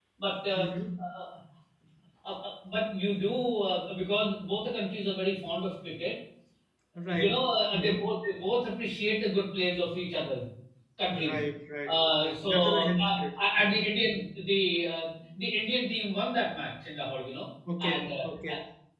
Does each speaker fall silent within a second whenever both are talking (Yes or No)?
No